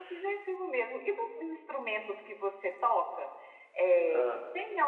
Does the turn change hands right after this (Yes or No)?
No